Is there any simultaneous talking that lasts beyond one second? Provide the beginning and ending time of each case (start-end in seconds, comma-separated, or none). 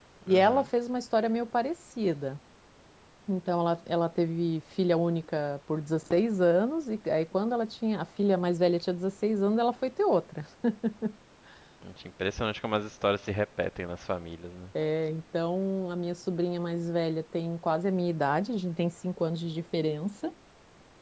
none